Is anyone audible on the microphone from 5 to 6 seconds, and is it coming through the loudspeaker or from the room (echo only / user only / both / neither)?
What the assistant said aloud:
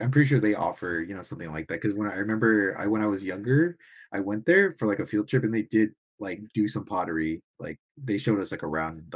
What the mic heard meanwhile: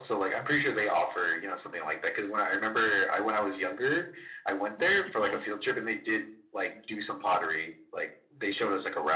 both